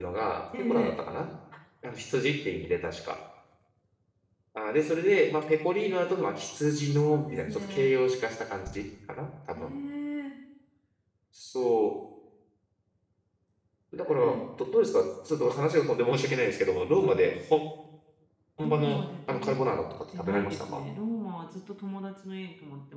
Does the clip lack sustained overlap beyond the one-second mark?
No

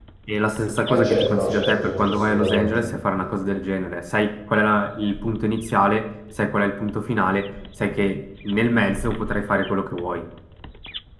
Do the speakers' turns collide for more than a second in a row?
Yes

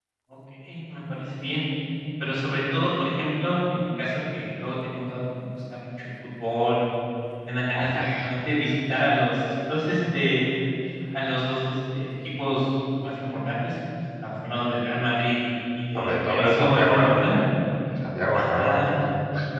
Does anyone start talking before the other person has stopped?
Yes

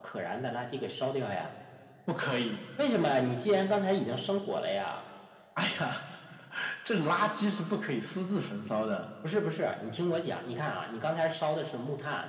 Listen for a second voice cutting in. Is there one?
No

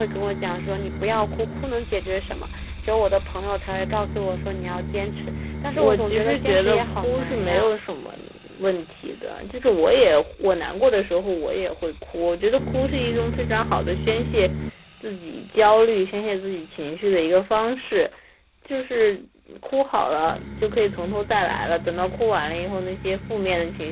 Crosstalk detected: Yes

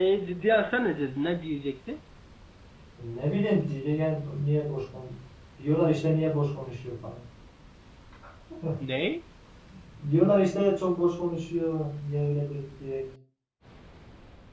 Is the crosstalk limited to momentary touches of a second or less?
Yes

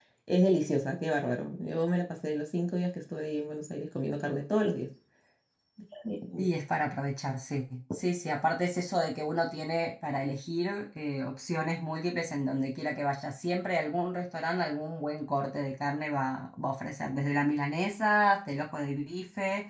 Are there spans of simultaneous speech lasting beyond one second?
No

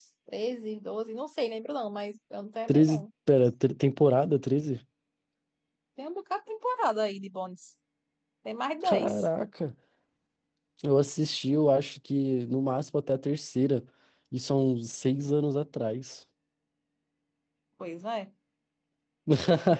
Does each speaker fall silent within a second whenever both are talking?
Yes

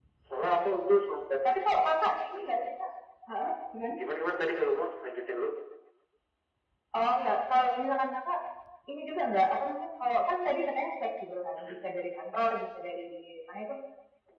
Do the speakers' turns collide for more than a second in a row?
No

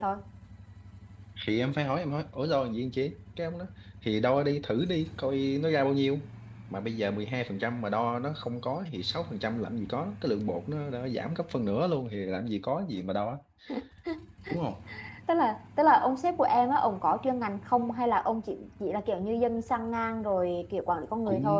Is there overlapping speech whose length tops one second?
No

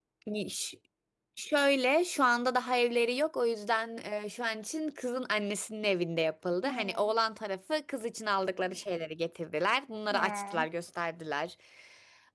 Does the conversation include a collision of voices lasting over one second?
No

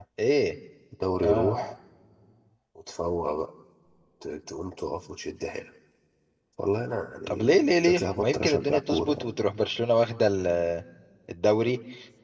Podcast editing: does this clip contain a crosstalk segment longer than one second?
Yes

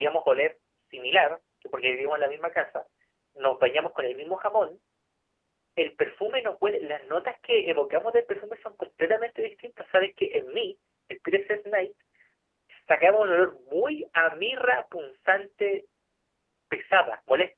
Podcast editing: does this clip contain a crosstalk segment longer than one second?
No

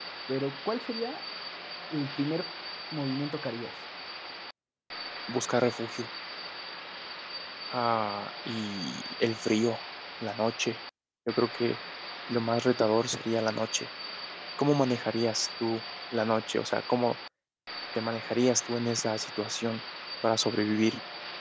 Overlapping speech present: No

